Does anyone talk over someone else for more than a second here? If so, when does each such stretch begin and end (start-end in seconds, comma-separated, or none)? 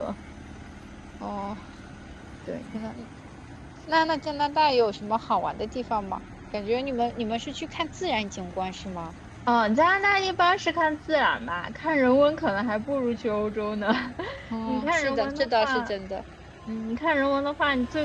14.7-15.9